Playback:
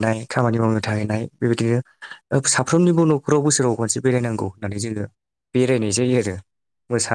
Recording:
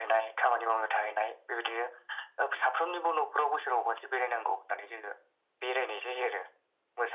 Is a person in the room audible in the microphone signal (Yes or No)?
No